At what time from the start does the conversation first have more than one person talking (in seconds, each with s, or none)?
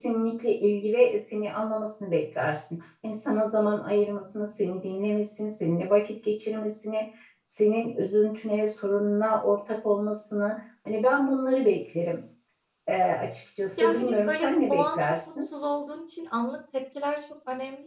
13.8 s